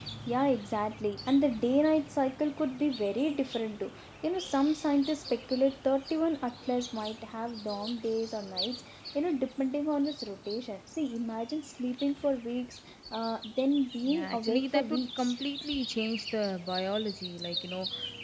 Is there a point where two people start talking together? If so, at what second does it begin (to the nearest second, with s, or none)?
14 s